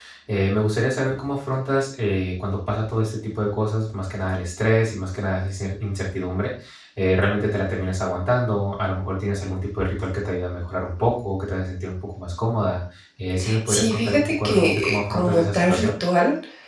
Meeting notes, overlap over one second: present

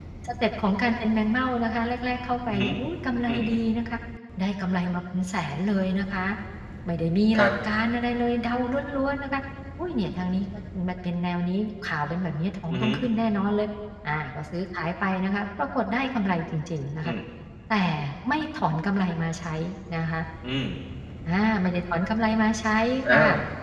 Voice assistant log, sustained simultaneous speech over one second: none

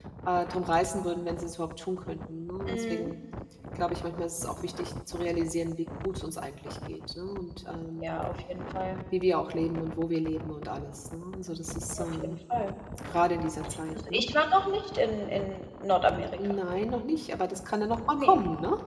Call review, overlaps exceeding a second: none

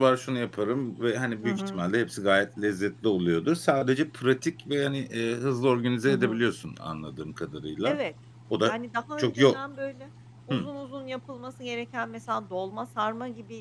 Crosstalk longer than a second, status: none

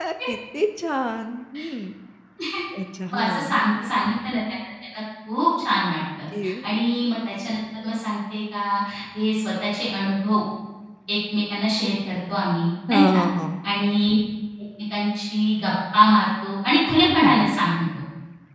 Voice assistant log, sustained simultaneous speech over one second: none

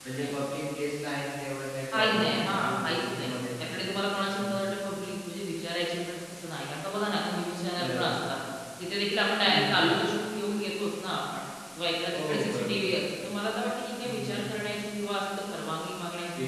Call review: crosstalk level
present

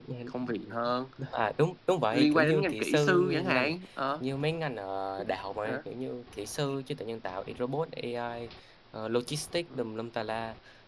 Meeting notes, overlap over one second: present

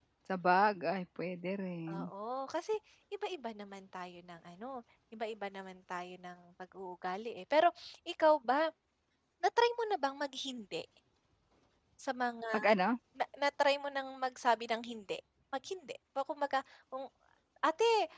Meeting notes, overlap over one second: none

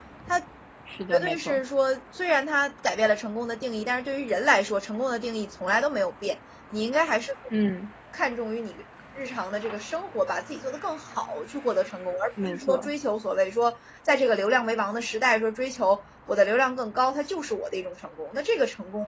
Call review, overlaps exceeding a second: none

